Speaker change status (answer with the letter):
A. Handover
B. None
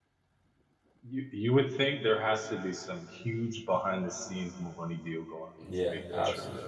A